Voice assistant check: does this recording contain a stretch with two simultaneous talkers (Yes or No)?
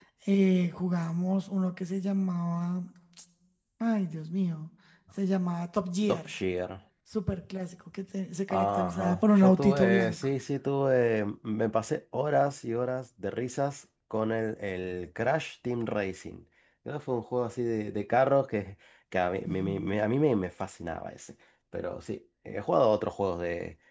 Yes